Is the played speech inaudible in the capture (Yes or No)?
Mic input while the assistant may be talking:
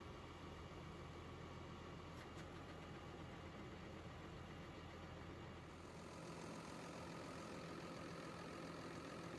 Yes